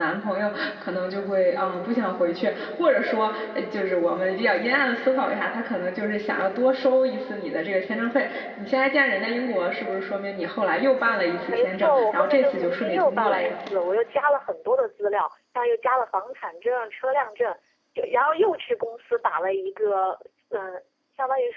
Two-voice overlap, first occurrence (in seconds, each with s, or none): 11.5 s